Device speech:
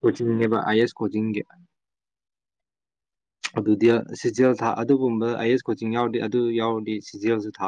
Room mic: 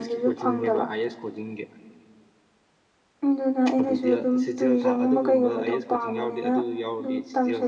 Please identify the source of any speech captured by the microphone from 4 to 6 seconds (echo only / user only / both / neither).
both